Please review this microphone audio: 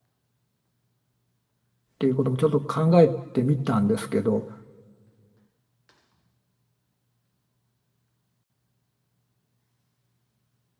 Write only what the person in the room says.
ていうこともちょっと考えてみたんですけど

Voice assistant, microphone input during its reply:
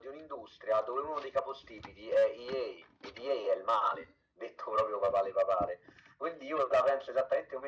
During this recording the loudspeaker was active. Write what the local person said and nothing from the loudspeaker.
none

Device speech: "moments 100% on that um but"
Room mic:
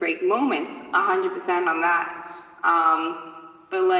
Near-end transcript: none

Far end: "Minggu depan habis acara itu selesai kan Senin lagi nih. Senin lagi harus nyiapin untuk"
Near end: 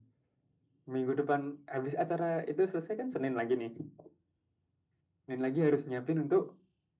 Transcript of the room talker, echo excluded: none

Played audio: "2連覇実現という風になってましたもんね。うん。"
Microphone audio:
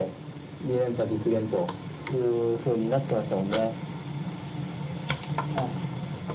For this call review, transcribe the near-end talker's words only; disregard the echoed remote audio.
none

